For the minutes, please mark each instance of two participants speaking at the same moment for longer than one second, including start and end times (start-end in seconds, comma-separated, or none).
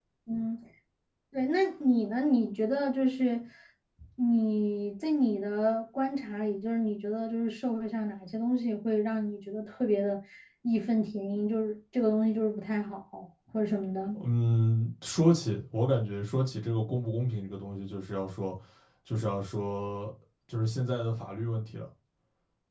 none